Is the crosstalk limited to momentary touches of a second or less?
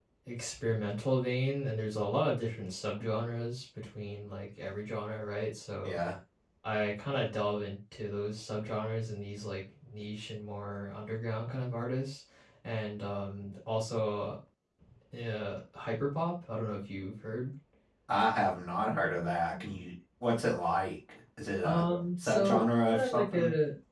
No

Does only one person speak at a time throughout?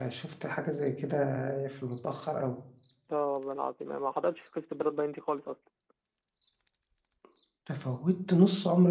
Yes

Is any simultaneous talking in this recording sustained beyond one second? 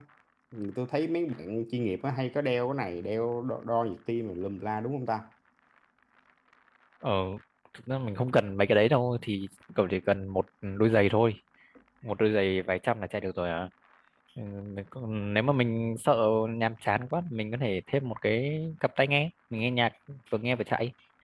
No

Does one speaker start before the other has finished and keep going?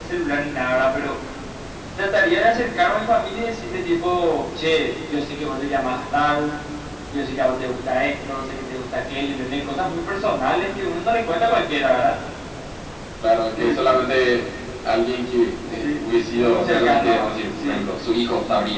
Yes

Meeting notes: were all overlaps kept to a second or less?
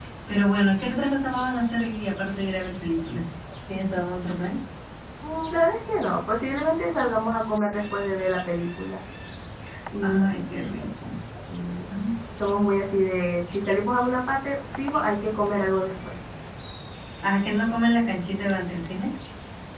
Yes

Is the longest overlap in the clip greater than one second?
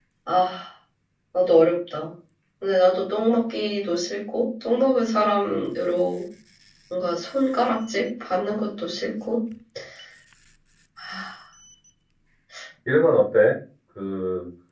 No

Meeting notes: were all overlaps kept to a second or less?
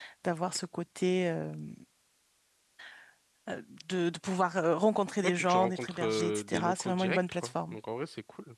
No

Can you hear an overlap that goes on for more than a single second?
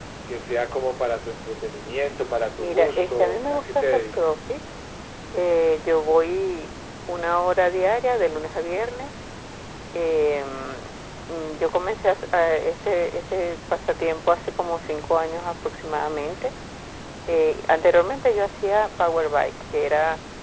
Yes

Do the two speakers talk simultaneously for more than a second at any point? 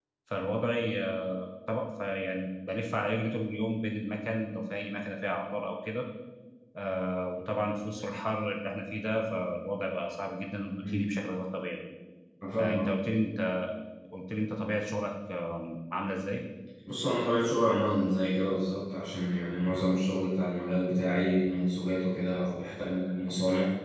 No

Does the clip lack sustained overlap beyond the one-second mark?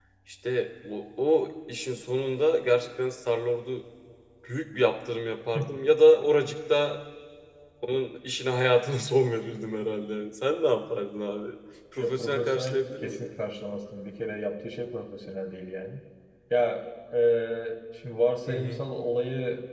No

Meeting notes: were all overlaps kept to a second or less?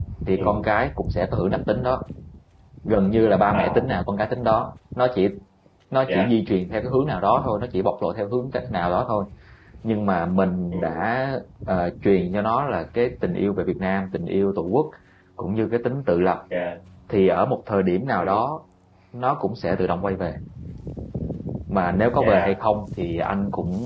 Yes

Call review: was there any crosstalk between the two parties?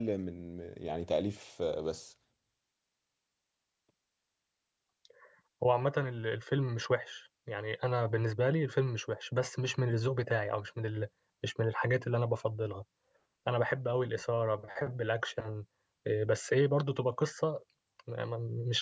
No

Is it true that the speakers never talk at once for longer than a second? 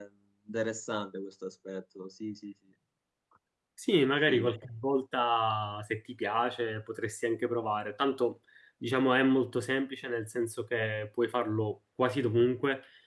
Yes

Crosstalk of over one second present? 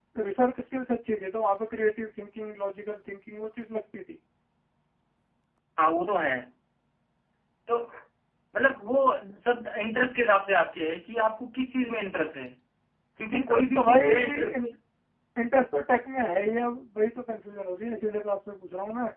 Yes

